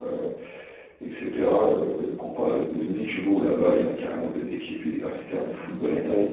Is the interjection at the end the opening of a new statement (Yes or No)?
No